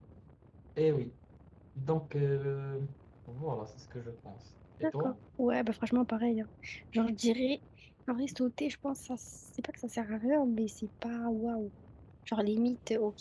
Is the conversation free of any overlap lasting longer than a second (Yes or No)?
Yes